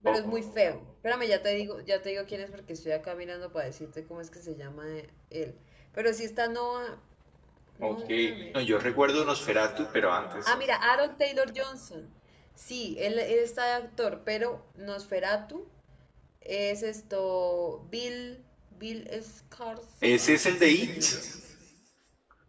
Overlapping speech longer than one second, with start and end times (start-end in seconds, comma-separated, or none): none